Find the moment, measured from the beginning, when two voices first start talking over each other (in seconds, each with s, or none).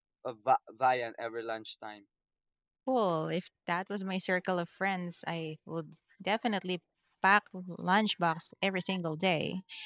none